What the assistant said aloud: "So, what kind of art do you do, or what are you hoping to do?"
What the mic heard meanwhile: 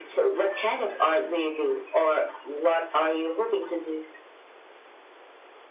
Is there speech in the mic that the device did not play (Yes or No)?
No